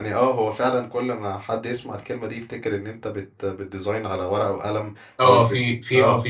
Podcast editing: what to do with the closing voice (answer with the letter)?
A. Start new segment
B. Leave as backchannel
A